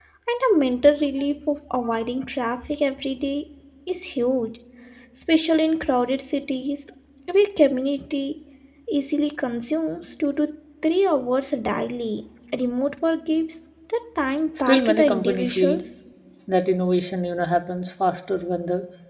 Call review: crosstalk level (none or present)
present